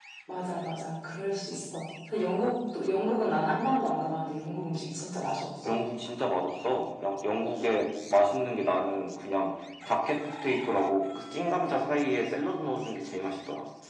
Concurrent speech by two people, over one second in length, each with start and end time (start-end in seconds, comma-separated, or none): none